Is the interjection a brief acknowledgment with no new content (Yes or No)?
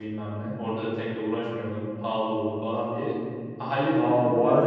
No